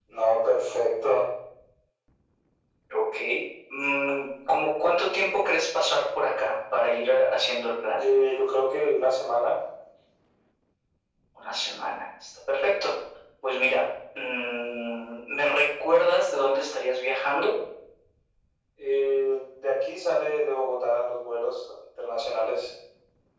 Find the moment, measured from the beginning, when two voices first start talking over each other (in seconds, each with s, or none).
none